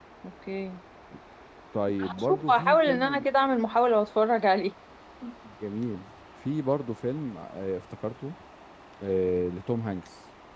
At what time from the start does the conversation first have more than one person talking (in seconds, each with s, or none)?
2.0 s